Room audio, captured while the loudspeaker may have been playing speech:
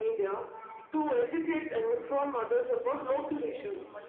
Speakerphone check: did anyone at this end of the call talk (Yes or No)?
Yes